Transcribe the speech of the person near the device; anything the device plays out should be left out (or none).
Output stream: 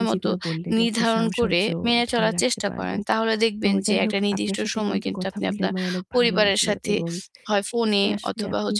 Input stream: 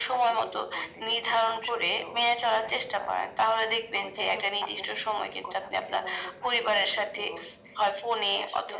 none